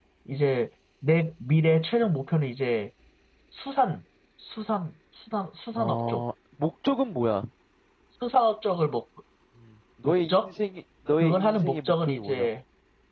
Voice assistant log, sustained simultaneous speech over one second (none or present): present